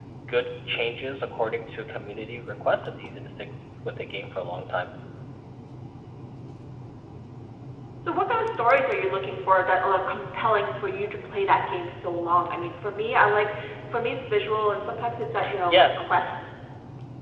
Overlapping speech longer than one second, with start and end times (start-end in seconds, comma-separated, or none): none